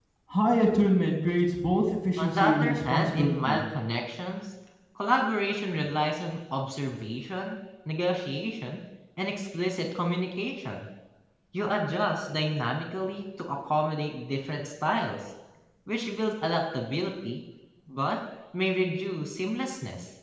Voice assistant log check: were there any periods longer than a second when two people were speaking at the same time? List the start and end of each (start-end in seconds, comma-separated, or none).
2.2-3.6